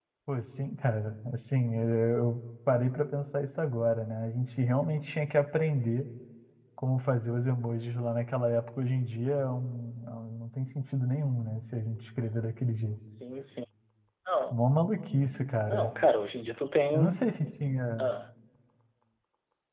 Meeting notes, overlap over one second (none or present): none